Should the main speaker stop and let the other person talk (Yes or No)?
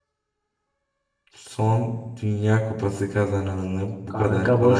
Yes